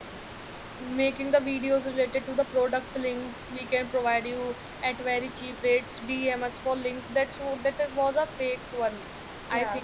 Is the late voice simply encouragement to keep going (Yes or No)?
Yes